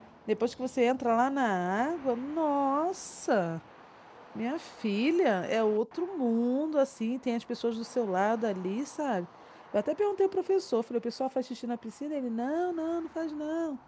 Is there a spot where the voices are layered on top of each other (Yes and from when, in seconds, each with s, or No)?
No